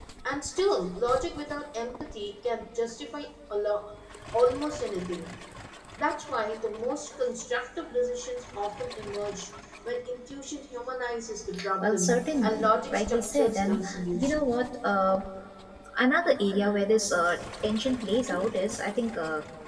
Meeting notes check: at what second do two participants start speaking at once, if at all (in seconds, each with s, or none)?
11.8 s